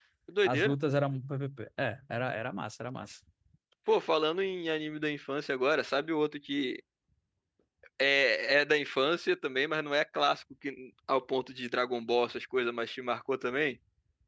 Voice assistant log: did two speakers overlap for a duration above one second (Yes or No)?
No